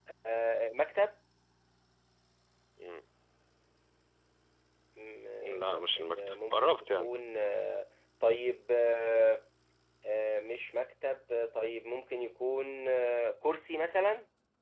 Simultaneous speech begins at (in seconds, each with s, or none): 5.4 s